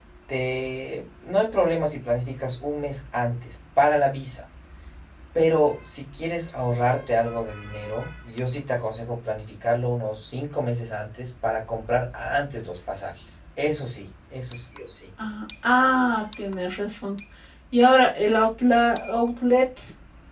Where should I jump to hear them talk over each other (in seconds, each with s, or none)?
none